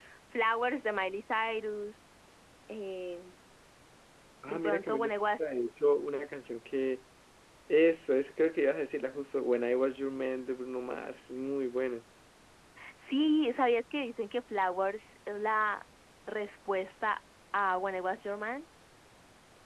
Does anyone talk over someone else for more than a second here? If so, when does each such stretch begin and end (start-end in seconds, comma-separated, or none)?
4.5-6.1